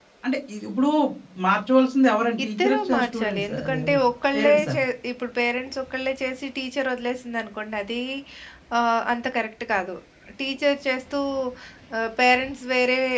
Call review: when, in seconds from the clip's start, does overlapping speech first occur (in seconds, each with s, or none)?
2.4 s